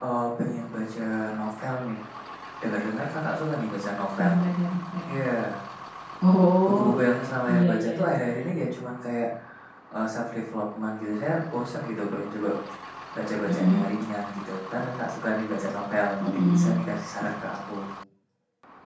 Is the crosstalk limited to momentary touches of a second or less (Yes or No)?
Yes